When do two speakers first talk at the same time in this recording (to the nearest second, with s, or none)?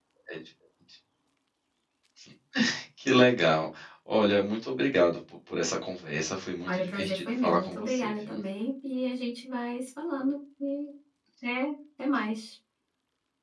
7 s